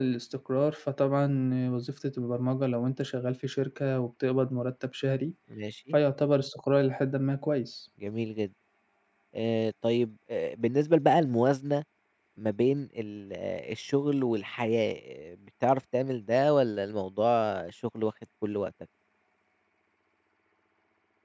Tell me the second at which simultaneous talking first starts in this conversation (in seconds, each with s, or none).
none